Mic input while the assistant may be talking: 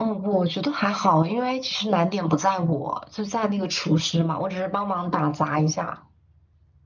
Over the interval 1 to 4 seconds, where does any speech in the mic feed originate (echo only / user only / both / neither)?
echo only